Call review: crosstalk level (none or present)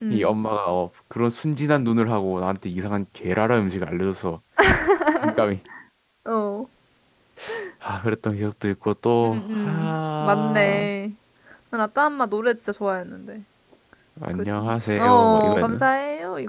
present